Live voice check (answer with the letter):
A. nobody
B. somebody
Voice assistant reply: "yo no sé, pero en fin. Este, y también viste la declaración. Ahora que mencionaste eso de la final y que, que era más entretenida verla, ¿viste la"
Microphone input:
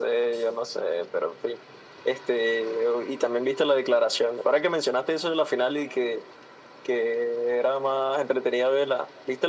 A